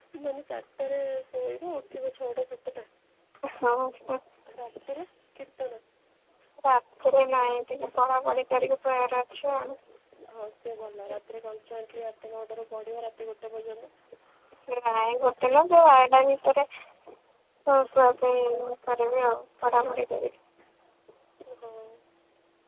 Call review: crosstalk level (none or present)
none